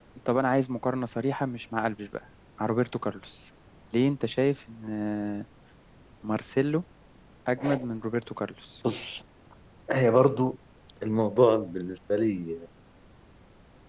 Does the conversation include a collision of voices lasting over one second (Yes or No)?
No